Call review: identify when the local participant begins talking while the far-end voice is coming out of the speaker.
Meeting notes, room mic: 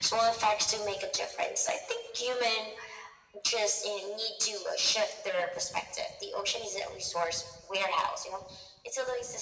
none

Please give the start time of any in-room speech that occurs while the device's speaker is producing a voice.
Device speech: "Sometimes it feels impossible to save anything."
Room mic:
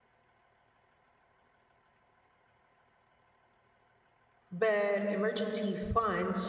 4.5 s

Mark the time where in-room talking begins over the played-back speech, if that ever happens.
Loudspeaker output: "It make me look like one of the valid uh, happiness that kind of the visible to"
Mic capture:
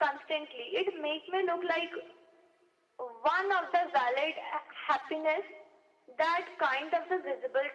none

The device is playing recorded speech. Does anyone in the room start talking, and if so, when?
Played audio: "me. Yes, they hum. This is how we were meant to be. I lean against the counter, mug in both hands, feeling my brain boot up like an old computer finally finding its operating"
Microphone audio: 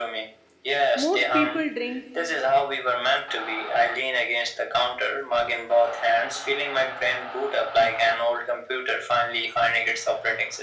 0.9 s

